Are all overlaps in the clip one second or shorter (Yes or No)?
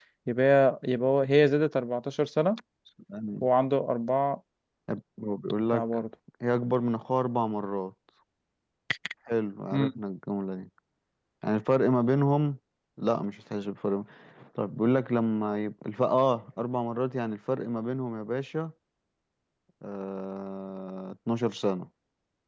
Yes